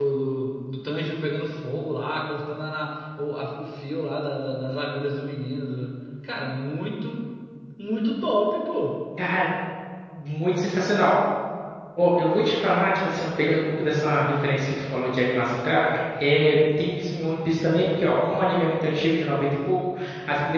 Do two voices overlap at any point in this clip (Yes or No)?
No